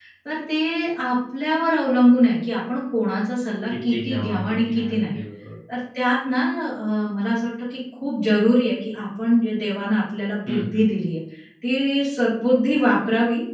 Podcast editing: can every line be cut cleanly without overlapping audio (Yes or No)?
No